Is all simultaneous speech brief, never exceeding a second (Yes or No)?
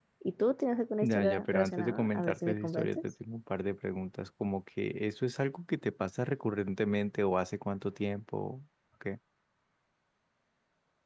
No